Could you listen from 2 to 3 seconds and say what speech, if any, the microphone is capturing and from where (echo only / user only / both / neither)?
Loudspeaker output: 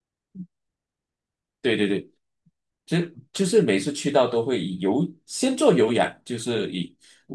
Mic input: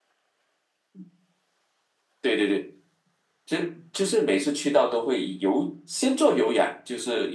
echo only